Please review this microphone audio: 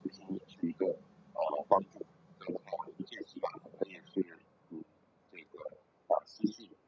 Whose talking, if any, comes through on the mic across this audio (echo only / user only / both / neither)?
echo only